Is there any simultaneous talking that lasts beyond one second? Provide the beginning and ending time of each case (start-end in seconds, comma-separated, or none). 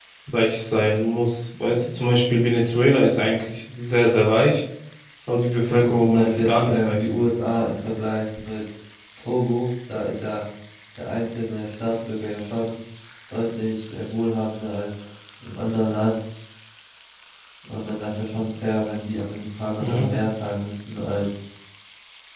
5.7-7.0